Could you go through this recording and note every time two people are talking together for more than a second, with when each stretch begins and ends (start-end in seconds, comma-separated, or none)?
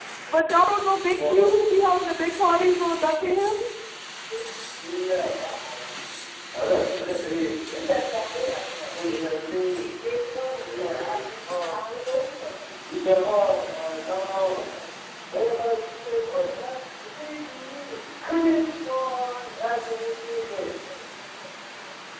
none